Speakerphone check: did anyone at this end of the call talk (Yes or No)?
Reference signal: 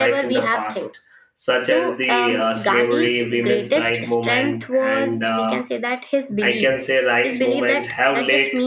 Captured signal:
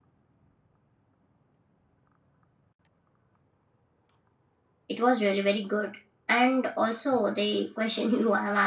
Yes